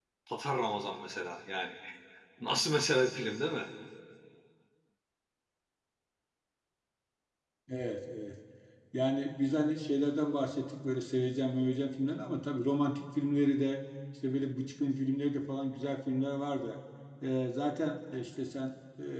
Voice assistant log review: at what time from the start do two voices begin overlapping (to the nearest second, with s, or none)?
none